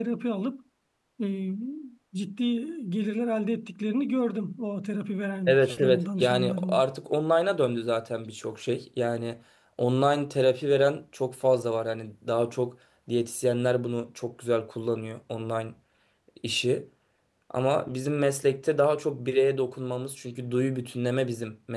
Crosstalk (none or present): present